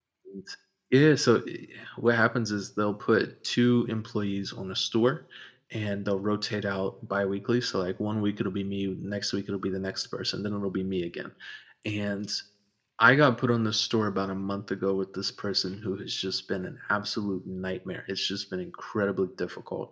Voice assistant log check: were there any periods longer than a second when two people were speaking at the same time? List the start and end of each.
none

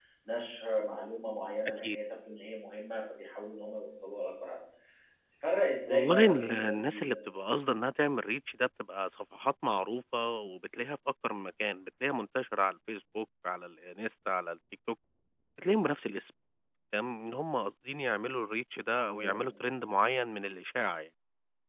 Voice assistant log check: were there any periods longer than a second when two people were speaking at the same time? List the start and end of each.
5.9-7.2

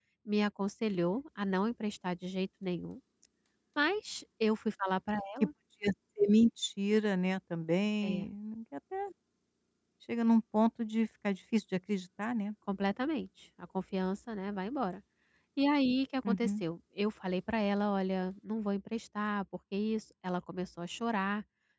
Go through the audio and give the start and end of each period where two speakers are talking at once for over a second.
none

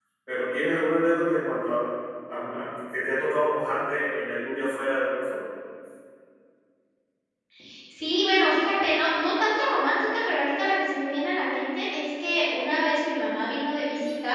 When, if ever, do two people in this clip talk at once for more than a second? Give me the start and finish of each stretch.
none

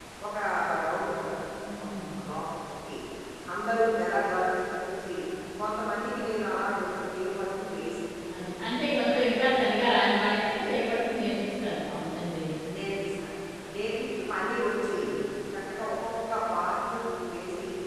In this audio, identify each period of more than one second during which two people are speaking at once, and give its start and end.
none

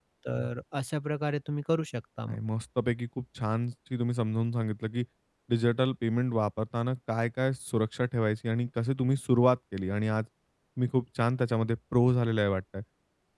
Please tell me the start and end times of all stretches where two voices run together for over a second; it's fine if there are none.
none

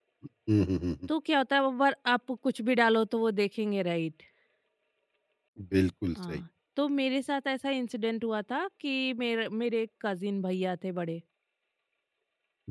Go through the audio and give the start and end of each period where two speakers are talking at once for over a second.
none

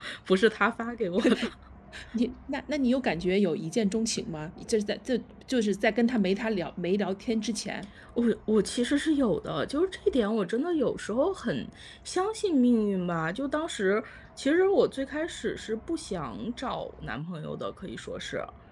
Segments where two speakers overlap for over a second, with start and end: none

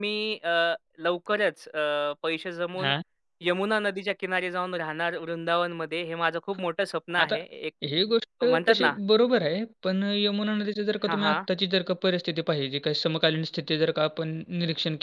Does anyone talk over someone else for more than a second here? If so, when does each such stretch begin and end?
none

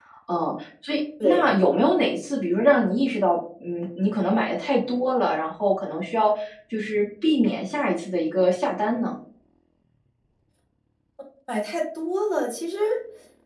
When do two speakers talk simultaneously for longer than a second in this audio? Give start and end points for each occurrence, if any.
none

